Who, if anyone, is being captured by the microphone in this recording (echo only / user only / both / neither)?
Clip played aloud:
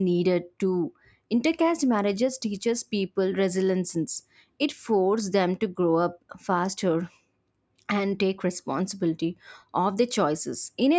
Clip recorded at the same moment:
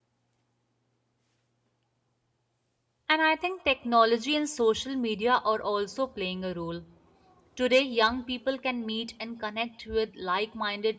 user only